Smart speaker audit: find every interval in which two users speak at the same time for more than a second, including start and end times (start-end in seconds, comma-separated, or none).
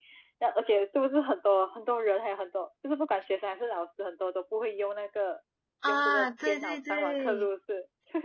5.8-7.5